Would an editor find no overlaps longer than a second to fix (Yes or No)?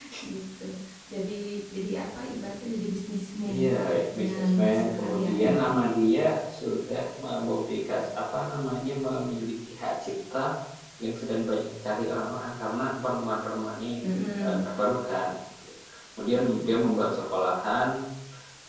No